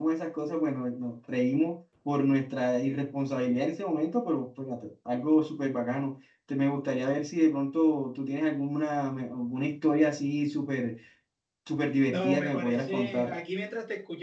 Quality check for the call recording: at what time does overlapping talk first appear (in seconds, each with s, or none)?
12.1 s